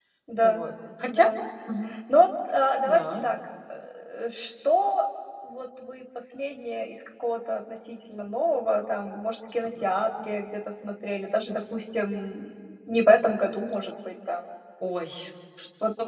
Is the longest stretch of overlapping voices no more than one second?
Yes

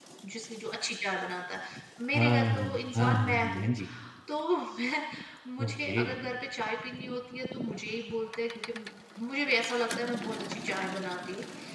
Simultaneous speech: Yes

